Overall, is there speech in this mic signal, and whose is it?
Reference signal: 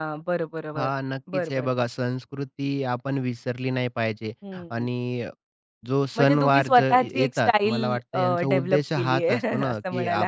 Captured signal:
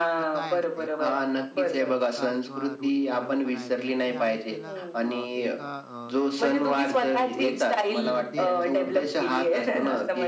both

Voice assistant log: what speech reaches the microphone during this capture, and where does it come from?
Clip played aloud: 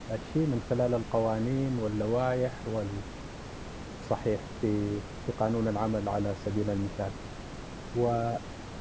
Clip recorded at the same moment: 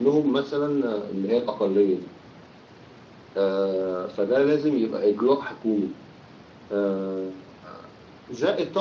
user only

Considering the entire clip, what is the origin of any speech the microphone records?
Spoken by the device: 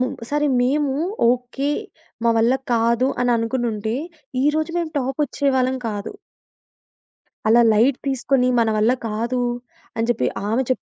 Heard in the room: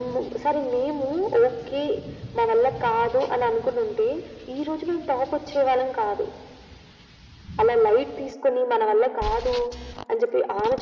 echo only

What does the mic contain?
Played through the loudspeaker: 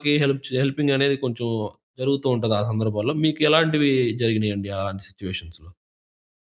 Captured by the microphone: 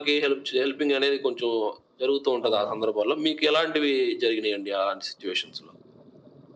both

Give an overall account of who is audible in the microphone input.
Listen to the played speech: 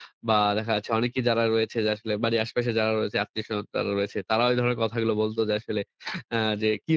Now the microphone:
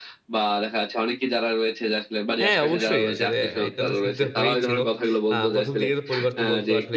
both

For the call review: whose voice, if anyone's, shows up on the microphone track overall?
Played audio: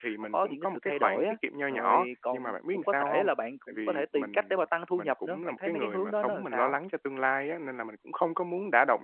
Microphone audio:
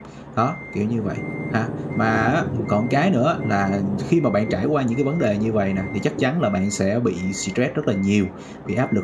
user only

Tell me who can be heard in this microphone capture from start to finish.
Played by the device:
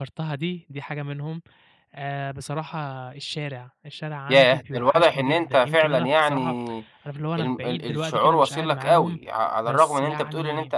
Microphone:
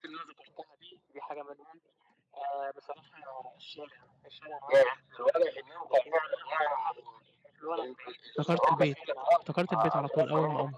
both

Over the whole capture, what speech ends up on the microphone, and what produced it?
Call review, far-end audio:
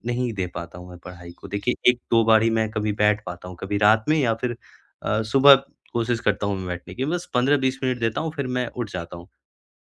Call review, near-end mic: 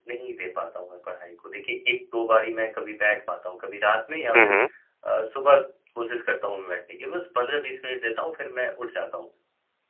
both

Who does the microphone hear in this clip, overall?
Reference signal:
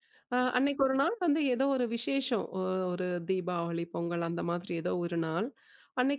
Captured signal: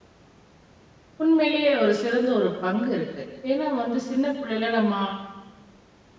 user only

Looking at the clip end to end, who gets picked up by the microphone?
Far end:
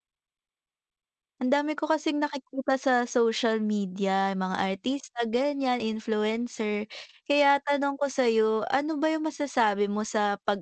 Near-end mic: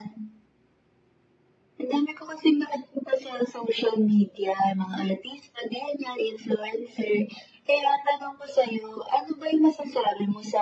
echo only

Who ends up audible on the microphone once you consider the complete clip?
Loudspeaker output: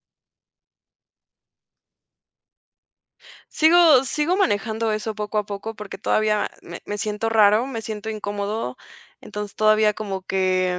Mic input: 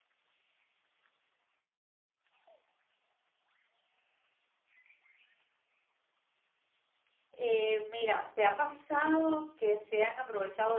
user only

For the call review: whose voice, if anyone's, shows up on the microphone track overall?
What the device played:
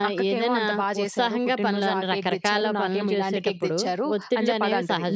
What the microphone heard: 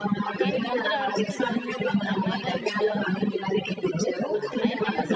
both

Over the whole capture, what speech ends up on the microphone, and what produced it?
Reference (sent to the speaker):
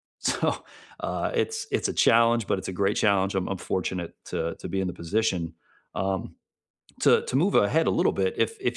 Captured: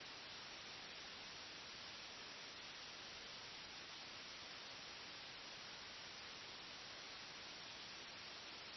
neither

